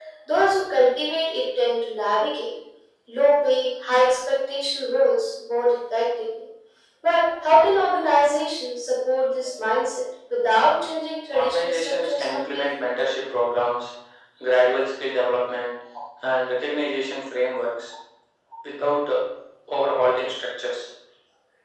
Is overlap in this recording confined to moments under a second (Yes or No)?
No